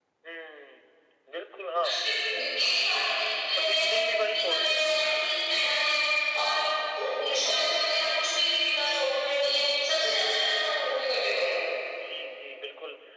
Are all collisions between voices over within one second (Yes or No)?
No